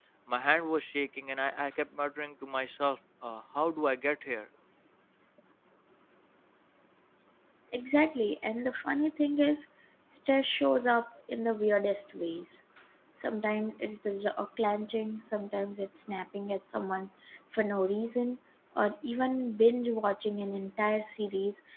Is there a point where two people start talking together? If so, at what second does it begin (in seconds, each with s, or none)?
none